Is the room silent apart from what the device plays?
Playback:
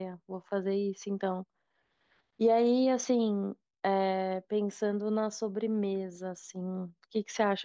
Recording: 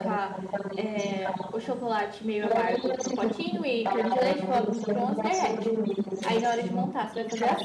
No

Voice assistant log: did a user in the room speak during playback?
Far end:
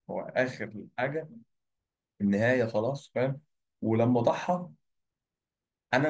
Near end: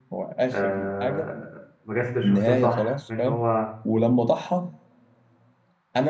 Yes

